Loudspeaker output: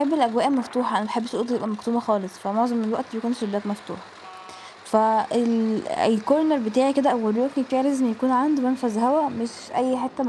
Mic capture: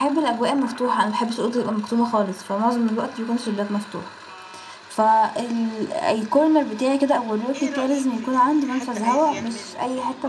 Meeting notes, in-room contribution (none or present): present